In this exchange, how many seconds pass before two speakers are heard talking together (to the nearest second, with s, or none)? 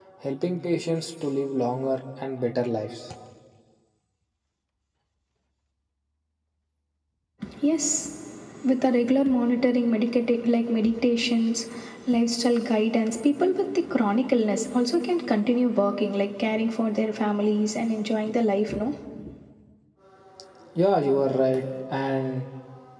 none